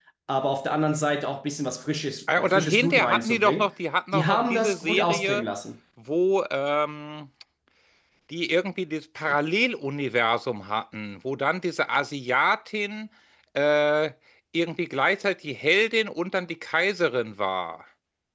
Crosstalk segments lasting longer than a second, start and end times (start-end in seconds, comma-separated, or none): 2.4-3.7, 4.1-5.4